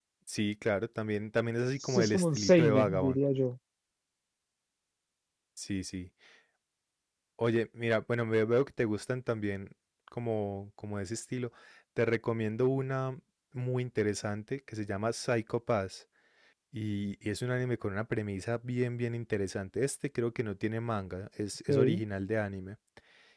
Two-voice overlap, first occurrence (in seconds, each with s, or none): 1.8 s